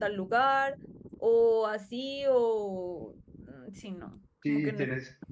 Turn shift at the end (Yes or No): Yes